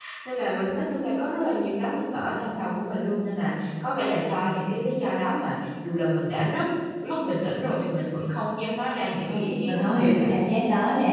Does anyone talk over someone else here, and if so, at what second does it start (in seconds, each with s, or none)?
8.9 s